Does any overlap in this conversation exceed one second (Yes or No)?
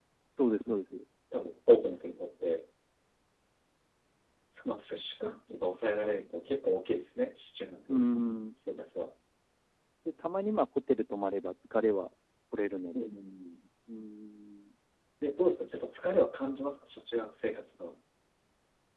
No